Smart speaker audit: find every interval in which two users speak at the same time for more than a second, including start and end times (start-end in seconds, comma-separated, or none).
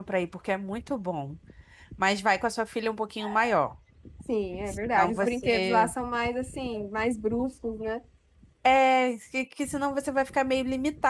4.7-5.9